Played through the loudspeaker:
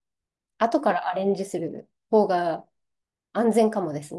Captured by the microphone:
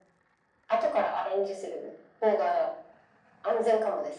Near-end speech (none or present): none